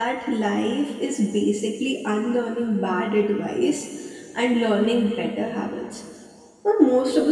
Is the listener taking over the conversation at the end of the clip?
No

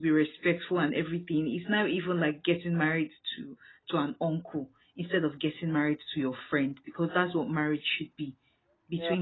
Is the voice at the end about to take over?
No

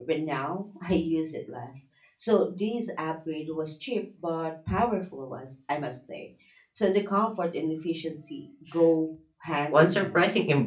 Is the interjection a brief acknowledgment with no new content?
No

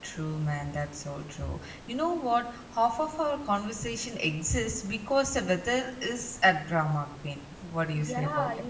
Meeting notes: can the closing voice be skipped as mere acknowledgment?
No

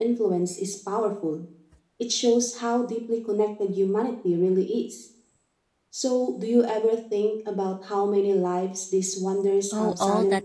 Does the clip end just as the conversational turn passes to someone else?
Yes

